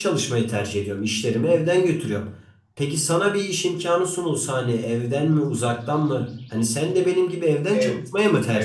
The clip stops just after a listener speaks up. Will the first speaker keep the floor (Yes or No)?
No